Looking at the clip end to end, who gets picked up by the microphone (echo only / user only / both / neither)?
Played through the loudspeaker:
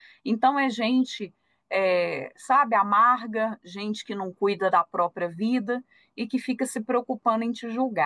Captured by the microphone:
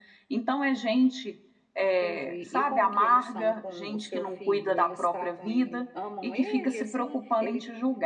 both